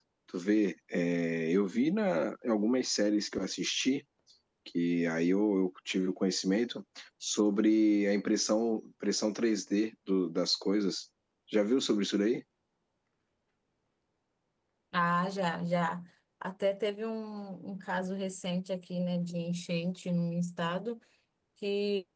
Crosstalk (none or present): none